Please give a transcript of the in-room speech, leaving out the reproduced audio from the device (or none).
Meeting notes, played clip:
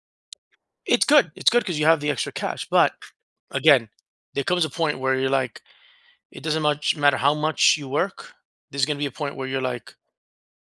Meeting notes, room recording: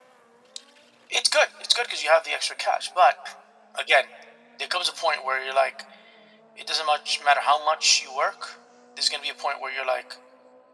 none